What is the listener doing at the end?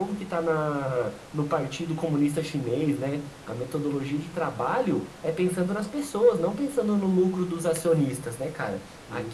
listening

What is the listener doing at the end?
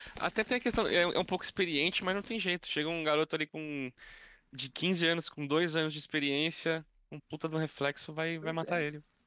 taking over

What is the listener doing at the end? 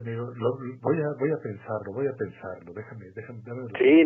taking over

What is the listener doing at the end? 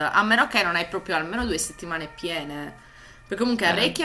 listening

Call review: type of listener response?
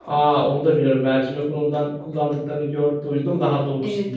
taking over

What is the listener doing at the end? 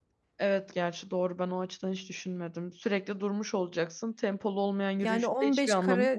taking over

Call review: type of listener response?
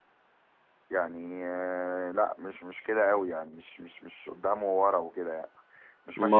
listening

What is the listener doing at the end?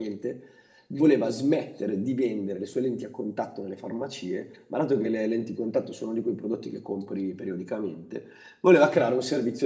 listening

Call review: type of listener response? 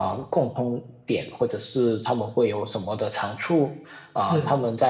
listening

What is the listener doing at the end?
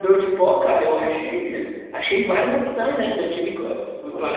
listening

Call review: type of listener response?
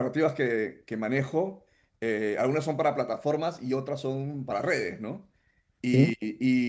listening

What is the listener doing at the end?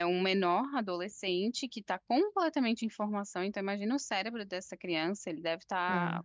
listening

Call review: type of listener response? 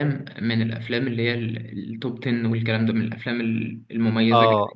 taking over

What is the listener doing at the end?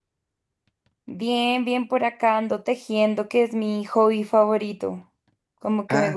listening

